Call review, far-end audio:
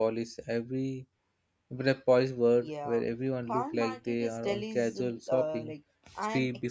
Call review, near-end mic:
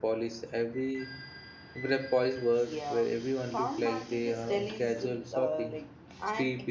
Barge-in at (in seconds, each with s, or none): none